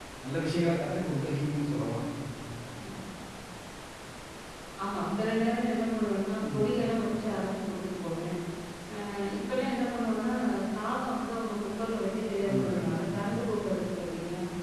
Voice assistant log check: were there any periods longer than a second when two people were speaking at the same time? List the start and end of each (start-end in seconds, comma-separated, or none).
none